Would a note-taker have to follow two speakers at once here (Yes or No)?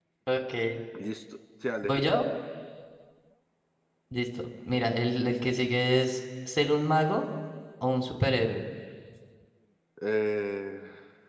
No